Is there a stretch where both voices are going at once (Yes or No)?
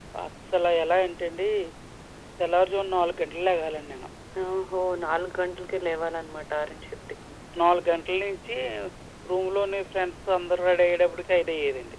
No